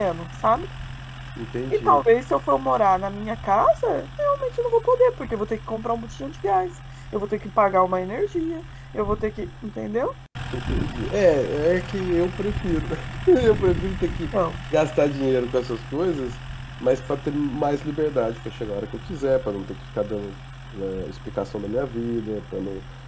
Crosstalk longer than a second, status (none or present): none